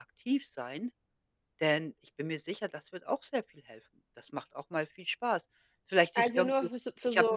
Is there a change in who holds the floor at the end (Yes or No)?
Yes